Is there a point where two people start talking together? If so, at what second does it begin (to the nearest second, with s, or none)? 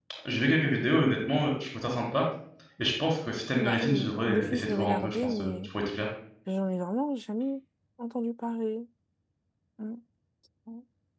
4 s